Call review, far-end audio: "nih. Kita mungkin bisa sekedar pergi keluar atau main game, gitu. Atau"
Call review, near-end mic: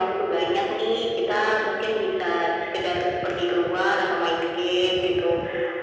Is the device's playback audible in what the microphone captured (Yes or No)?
Yes